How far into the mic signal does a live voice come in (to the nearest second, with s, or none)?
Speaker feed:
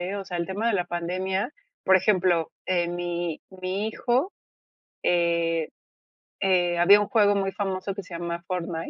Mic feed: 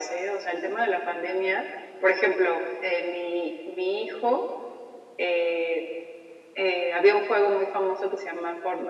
none